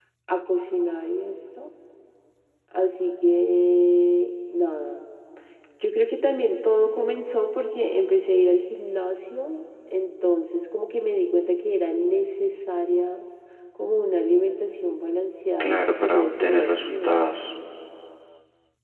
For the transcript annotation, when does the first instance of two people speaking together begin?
16 s

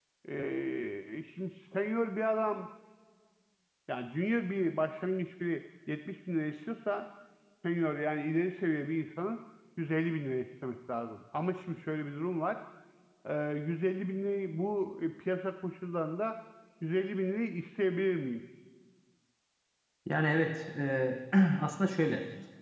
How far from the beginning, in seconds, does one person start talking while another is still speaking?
none

